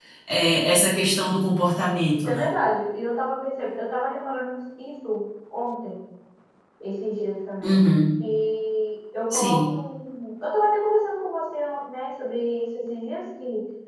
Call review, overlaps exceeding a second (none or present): none